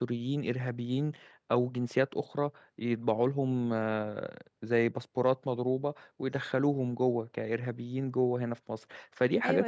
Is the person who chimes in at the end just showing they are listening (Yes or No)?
No